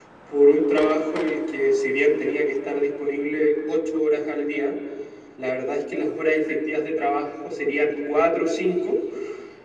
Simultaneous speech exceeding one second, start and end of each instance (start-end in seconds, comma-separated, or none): none